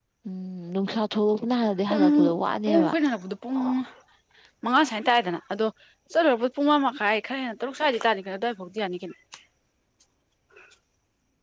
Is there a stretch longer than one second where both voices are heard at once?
No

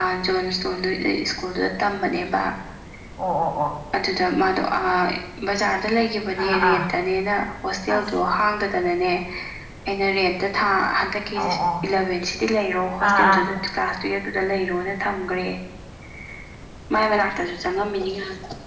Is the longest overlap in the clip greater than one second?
No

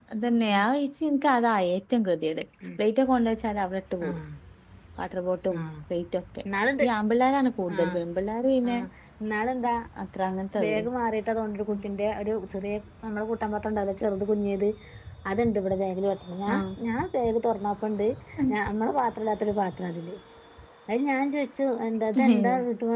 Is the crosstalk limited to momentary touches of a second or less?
Yes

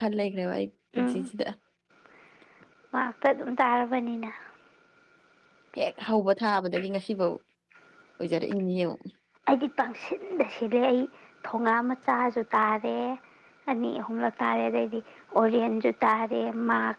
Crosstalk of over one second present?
No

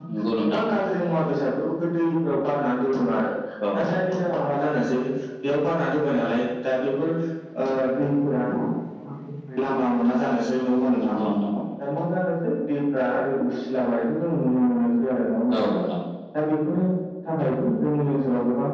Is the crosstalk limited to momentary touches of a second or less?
Yes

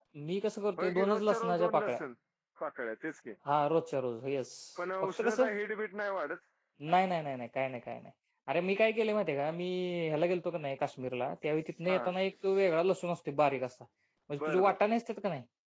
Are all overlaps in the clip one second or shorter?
No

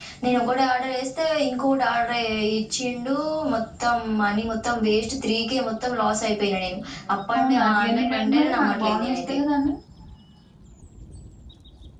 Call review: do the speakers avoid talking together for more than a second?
No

